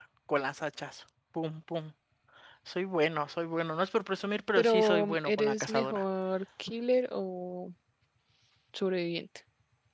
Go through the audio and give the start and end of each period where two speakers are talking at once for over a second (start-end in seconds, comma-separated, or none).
4.6-6.0